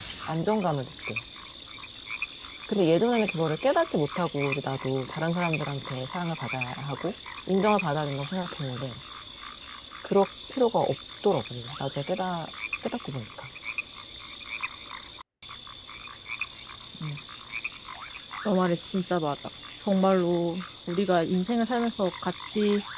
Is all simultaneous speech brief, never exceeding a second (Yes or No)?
Yes